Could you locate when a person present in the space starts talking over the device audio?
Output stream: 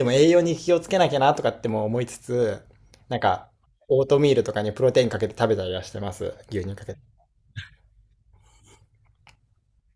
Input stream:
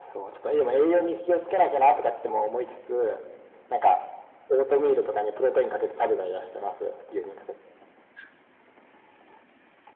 none

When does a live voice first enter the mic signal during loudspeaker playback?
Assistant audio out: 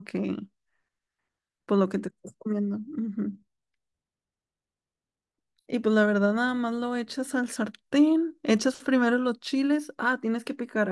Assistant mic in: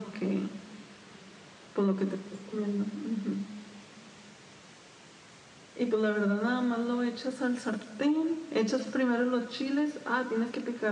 none

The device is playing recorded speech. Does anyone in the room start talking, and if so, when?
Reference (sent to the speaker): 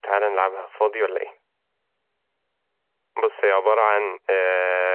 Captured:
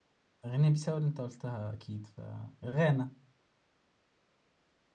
0 s

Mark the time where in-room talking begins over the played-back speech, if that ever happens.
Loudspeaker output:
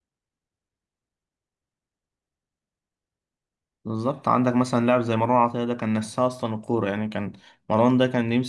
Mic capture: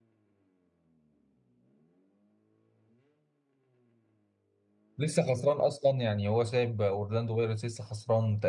5 s

